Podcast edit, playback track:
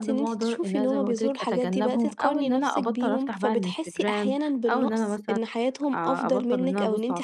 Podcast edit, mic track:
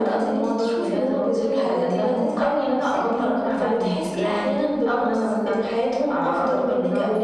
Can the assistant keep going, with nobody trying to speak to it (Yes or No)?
Yes